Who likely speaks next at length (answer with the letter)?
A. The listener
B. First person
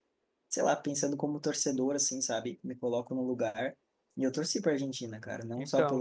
B